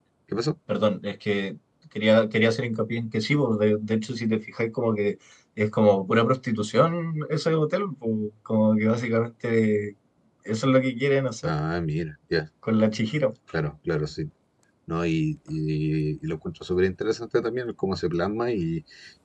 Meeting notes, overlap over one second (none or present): none